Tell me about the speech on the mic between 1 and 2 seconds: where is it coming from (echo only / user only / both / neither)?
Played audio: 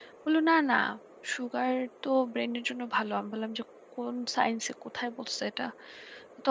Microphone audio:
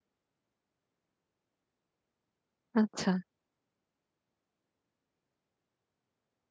neither